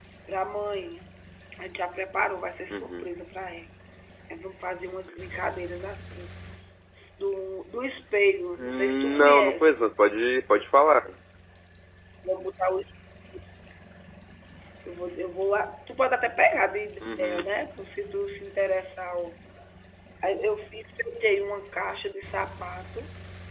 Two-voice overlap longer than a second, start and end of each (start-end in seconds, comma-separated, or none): 8.6-9.8